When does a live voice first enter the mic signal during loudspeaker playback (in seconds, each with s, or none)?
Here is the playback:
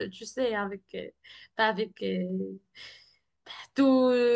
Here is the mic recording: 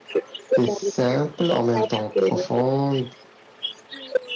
0.5 s